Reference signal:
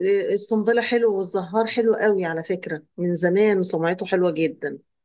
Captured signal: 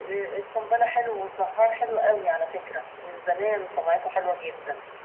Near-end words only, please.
none

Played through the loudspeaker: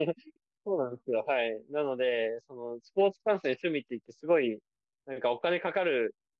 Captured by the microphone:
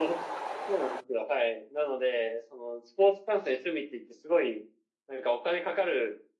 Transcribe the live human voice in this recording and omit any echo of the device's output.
none

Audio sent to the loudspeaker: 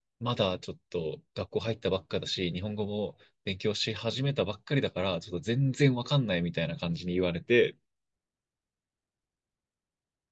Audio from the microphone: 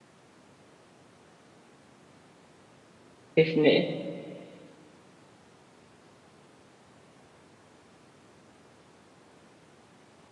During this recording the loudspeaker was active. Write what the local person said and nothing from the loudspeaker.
ですね。

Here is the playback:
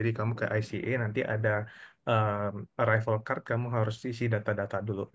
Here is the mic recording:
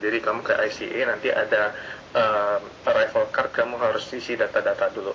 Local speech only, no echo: none

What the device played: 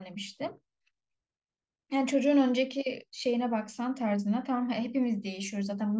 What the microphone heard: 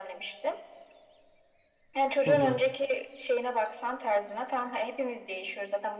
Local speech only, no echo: hı hı.

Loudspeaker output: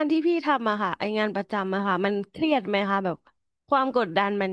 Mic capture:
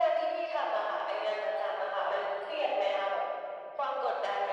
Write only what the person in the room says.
none

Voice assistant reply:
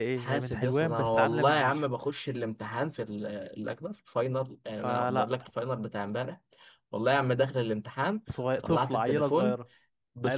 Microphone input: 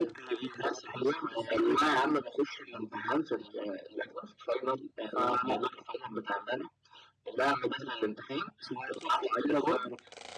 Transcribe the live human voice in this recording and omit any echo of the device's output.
none

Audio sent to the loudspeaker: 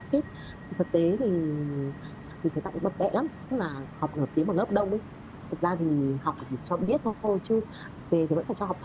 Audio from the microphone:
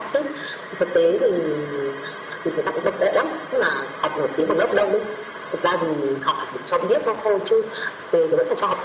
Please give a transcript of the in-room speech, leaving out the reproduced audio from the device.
none

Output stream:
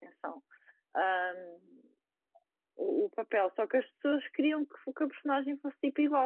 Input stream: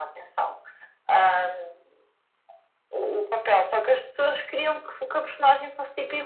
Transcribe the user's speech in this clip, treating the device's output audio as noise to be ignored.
none

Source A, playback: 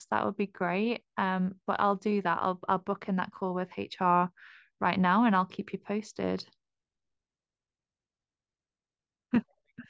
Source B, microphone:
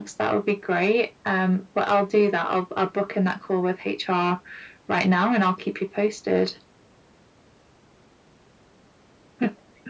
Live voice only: none

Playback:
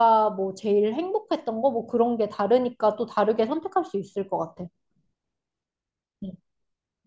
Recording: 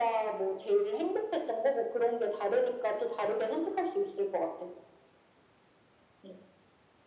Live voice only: none

